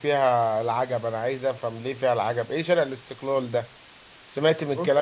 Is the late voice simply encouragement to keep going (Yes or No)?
Yes